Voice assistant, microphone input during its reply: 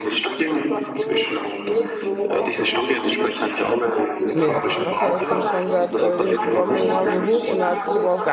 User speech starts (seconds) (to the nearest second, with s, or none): 4 s